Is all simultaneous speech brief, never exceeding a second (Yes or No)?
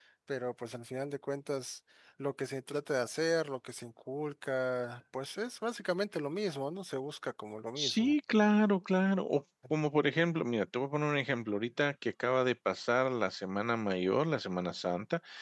Yes